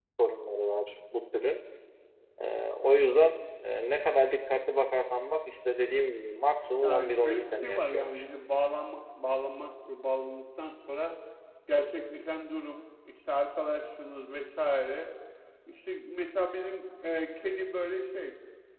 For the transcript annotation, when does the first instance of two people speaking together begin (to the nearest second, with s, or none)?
7 s